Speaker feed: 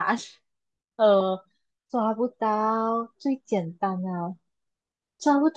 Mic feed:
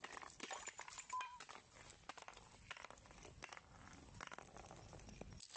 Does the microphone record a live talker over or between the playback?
No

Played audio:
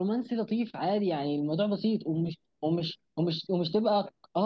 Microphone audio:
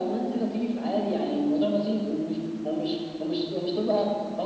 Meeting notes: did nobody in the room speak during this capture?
Yes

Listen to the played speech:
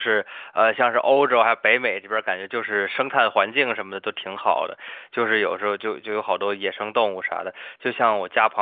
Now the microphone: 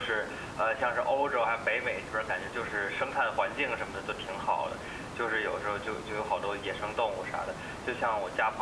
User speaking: No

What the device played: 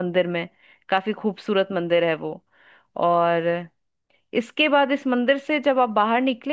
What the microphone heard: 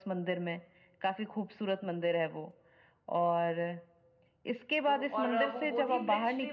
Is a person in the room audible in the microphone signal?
Yes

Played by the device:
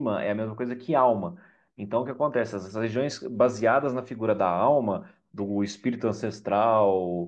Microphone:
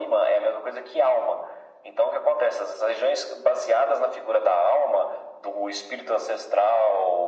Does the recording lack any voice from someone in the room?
Yes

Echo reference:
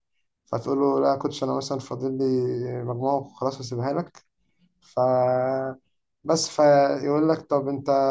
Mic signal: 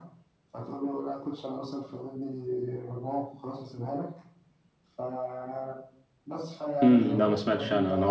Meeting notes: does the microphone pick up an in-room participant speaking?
Yes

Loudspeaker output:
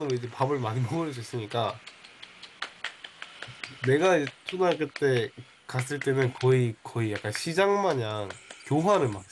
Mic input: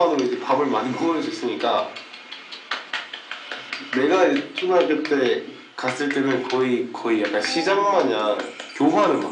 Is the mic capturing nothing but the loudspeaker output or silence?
No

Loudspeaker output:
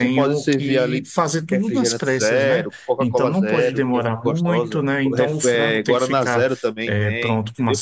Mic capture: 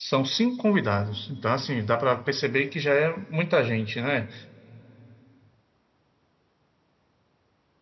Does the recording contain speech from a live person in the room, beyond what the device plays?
Yes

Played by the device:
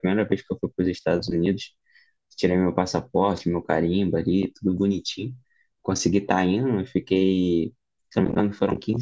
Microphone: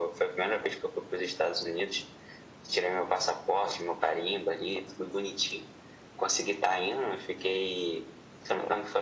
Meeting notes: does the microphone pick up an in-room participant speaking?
No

